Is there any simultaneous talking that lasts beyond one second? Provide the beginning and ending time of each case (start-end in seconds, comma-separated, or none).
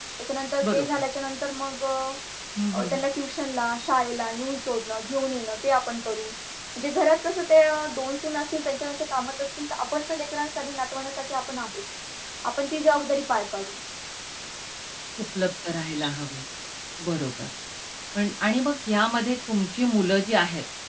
none